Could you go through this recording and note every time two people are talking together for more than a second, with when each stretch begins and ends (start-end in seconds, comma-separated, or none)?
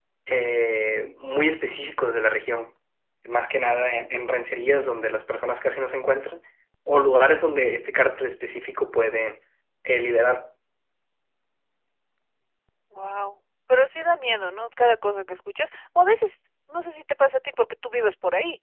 none